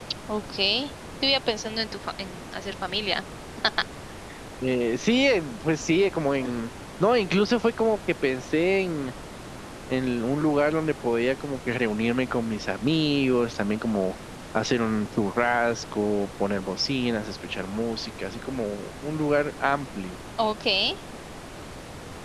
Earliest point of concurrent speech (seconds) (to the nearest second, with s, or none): none